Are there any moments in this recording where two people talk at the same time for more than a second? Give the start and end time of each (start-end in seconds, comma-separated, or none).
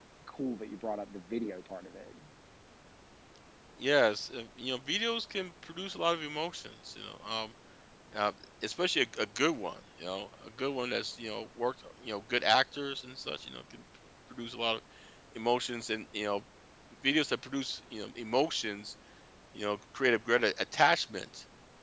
none